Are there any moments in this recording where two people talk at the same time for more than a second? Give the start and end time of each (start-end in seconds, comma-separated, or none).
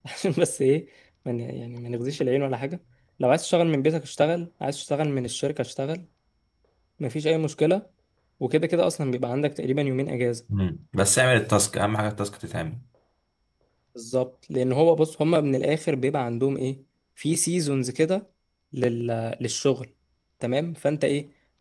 none